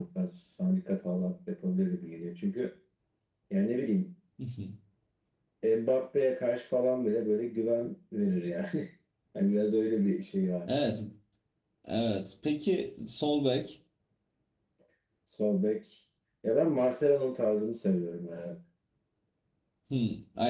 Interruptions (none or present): none